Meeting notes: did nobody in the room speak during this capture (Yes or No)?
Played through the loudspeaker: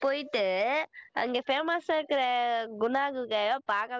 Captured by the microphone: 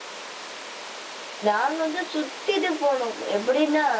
No